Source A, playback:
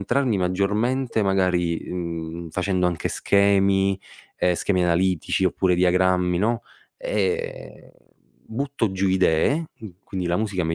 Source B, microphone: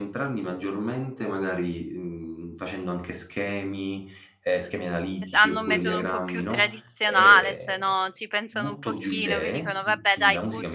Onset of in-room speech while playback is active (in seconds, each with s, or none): 5.3 s